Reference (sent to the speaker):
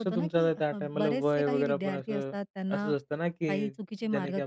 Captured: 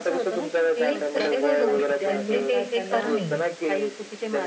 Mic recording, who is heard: both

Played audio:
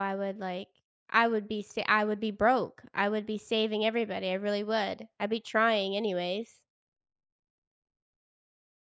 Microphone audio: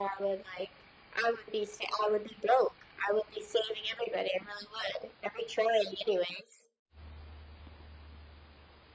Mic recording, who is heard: echo only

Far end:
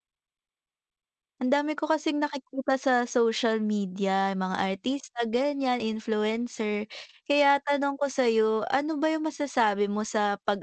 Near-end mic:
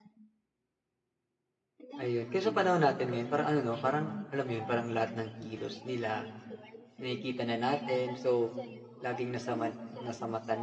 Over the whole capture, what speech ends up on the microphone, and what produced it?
both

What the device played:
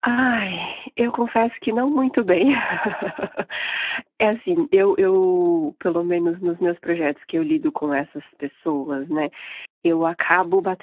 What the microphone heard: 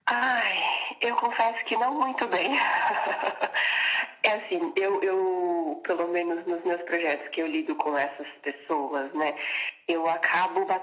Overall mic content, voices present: echo only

